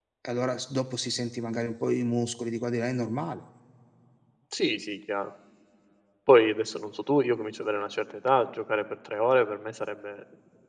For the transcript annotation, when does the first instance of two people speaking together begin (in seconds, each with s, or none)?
none